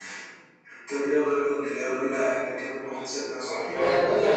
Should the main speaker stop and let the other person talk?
Yes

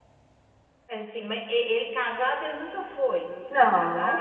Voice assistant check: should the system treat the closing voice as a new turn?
Yes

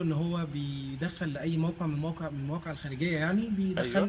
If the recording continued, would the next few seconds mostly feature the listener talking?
No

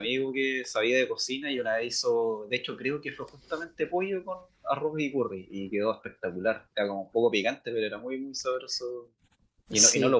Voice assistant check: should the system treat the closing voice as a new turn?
No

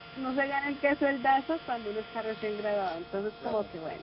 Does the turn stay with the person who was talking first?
Yes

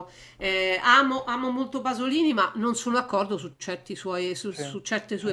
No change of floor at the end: Yes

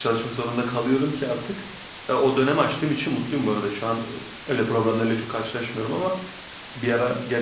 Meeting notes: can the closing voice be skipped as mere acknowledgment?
Yes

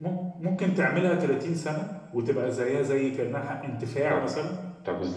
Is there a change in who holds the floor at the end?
Yes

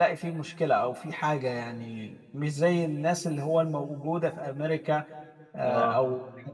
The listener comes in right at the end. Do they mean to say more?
No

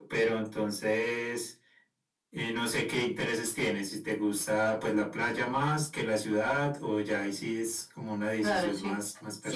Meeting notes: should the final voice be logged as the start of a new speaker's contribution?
Yes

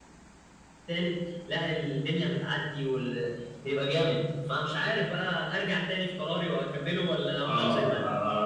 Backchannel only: No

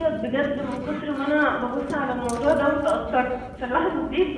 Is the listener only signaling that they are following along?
Yes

